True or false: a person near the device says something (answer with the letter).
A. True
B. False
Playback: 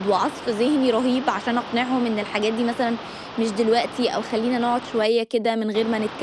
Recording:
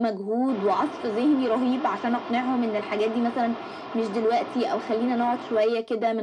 B